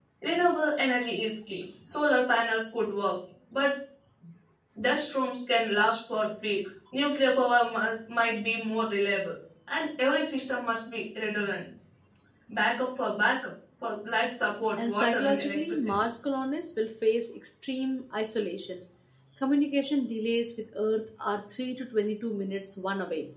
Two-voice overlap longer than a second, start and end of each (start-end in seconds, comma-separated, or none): 14.8-16.0